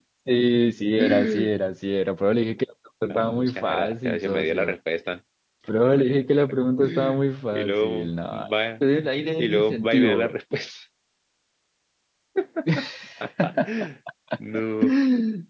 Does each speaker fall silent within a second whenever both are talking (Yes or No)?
No